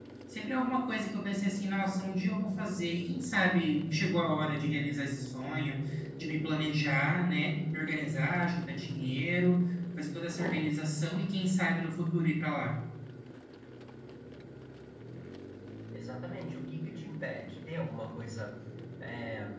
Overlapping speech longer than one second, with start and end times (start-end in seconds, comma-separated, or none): none